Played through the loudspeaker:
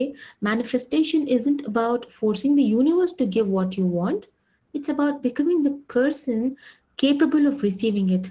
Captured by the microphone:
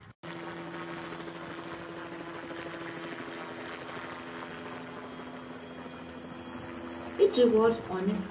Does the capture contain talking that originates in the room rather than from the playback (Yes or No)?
Yes